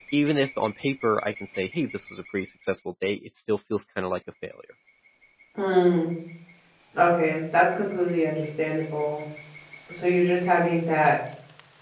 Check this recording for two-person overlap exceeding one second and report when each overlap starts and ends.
none

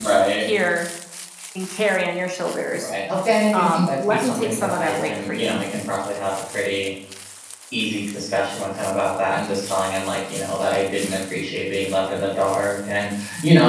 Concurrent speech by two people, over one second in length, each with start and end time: 3.5-5.6

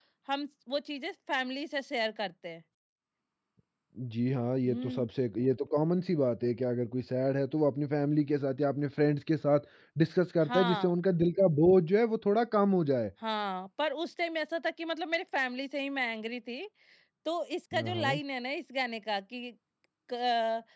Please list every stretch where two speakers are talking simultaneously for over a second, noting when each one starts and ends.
none

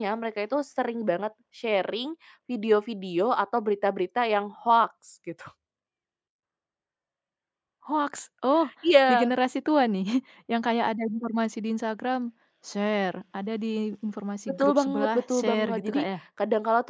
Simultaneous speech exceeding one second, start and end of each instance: 14.5-16.0

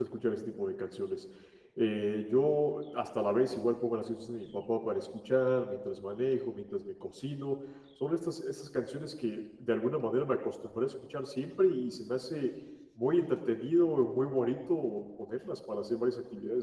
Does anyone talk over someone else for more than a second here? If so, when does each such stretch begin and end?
none

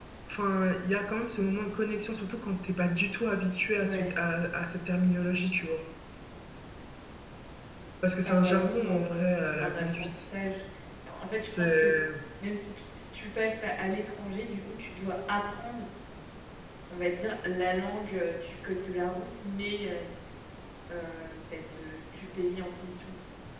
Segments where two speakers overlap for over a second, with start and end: 8.2-10.1

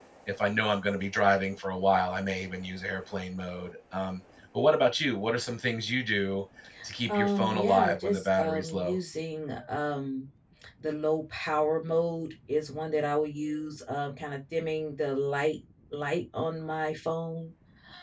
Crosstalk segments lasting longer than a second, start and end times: 7.1-9.0

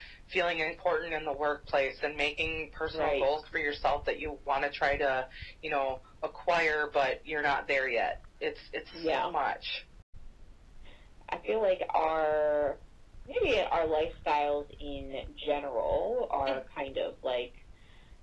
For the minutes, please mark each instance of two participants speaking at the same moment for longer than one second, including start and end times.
none

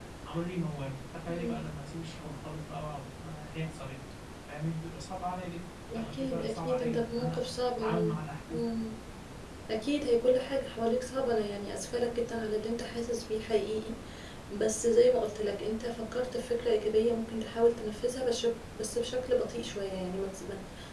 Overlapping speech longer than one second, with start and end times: 5.9-7.4

